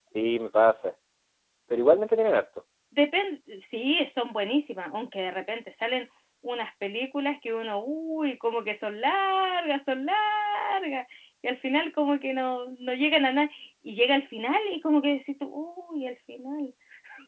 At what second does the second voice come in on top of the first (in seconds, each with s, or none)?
none